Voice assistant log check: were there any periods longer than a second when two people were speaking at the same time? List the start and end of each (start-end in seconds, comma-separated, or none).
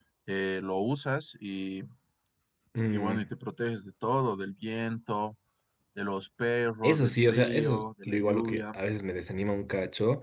6.8-8.8